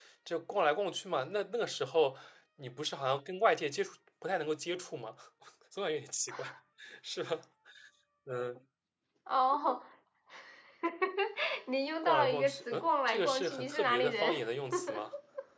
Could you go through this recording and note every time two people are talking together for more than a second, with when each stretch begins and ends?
12.0-14.4

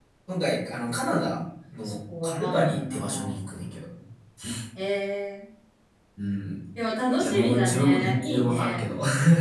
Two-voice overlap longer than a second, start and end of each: 1.8-3.5, 7.2-8.8

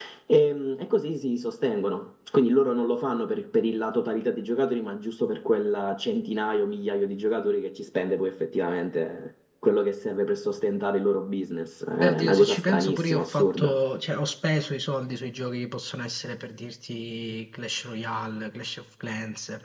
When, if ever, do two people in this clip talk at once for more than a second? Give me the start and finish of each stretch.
12.0-13.8

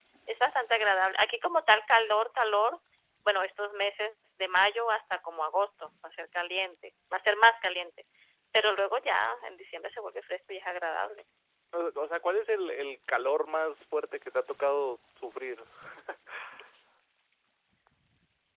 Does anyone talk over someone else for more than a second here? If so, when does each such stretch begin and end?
none

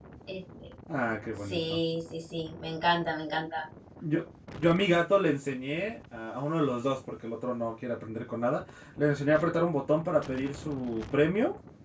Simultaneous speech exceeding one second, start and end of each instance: none

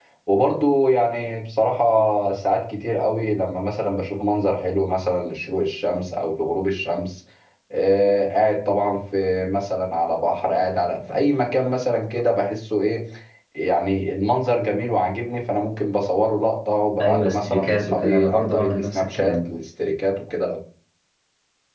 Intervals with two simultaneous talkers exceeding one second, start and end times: 17.0-19.4

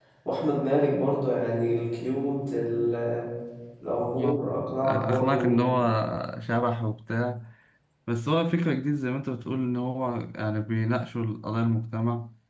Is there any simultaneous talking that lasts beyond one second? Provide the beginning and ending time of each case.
4.2-5.7

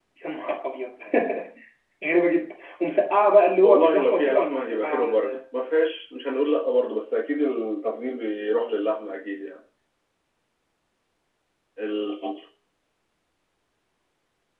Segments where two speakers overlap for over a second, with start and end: 3.6-5.4

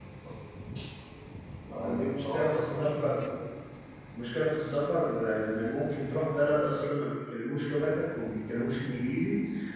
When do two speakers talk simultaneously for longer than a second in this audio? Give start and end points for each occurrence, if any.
1.7-3.2

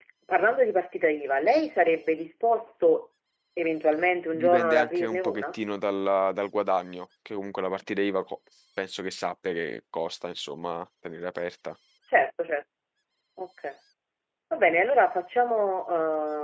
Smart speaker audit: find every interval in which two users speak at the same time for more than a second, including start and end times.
4.3-5.6

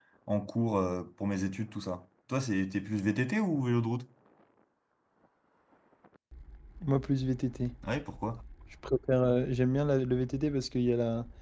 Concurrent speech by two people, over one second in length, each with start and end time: none

